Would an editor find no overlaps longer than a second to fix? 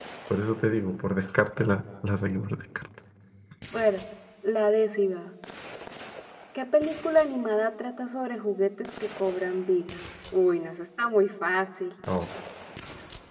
Yes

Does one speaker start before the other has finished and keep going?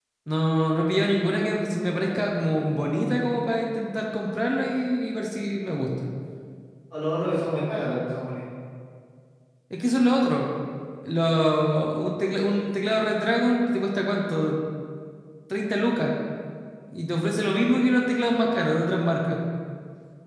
No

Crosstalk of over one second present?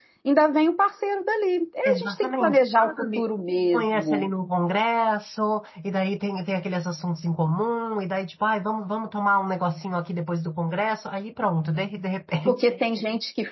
Yes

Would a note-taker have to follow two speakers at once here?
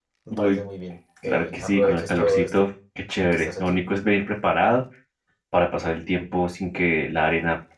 Yes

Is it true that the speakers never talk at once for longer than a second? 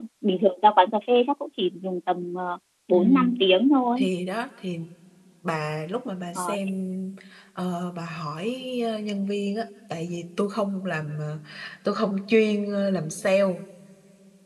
Yes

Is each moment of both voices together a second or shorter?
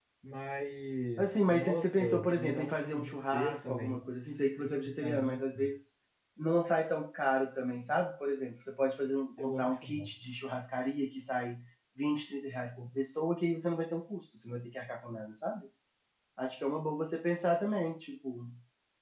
No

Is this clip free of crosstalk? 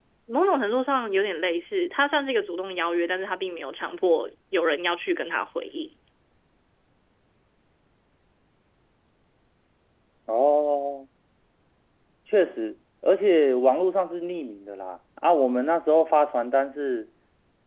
Yes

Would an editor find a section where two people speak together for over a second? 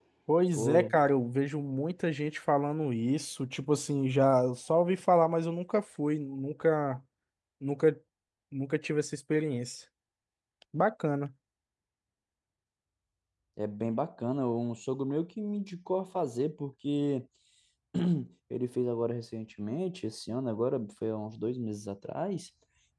No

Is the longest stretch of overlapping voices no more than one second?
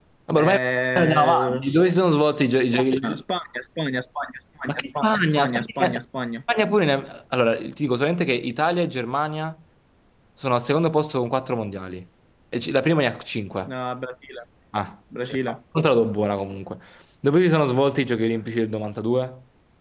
No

